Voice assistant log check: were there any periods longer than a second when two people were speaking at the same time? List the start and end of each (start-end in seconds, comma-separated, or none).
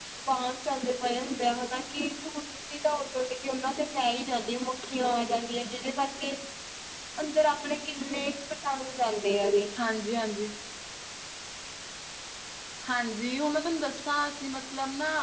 none